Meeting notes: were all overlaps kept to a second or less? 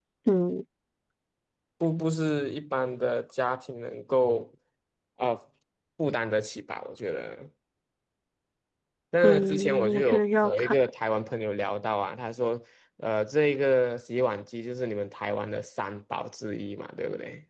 No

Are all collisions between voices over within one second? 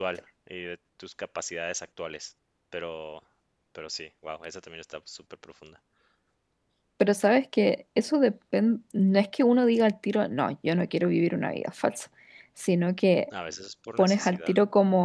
Yes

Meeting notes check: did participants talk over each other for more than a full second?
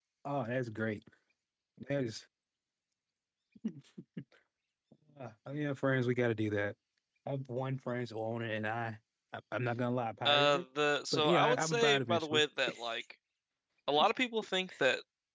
Yes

